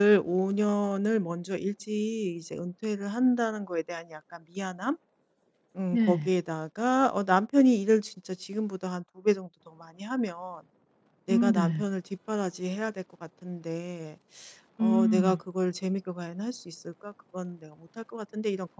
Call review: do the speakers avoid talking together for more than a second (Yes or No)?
Yes